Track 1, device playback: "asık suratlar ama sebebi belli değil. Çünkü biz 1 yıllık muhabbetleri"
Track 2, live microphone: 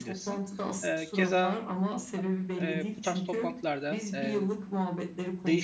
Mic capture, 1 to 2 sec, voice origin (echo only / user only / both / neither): both